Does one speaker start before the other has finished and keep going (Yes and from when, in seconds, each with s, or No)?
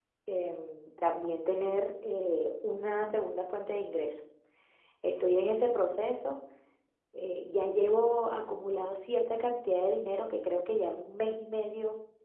No